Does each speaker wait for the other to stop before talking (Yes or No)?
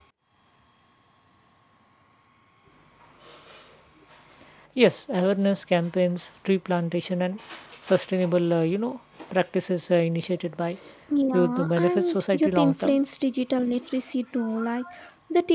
No